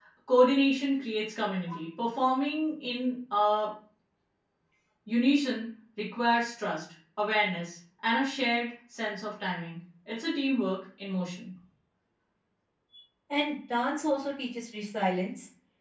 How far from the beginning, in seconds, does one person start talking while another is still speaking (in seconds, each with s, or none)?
none